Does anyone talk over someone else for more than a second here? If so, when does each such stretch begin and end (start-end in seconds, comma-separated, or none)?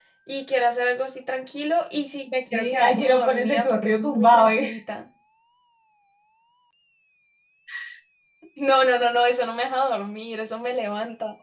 2.5-4.8